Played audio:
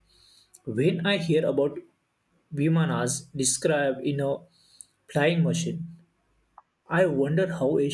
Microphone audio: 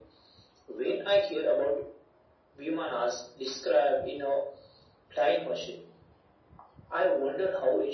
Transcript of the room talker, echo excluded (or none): none